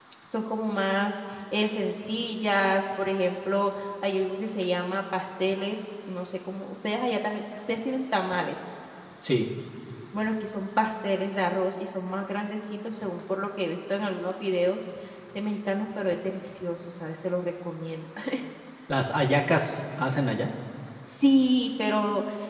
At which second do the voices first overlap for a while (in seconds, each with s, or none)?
none